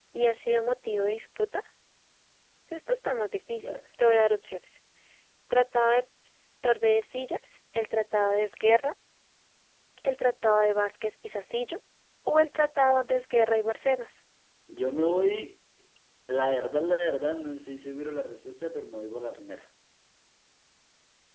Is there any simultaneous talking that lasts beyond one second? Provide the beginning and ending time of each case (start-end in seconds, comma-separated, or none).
none